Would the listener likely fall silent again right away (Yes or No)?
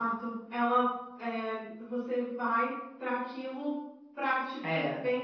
Yes